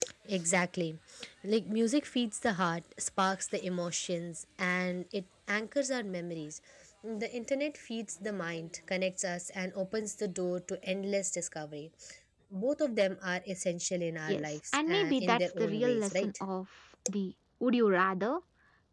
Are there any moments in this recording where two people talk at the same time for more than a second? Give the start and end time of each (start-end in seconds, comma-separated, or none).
14.3-16.3